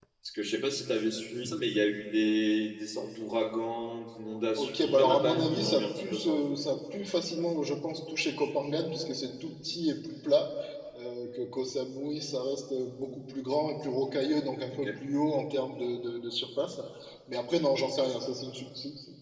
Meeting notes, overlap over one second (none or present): present